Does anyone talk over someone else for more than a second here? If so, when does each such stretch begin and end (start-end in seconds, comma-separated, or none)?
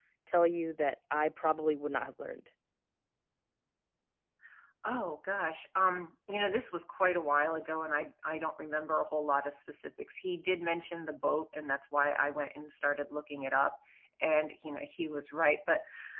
none